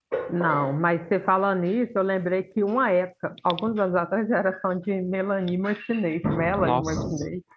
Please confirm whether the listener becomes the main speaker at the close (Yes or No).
Yes